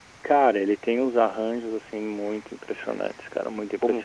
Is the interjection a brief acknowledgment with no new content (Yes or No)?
No